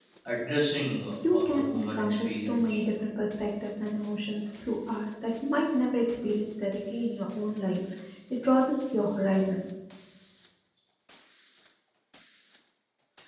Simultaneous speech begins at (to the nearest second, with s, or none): 1 s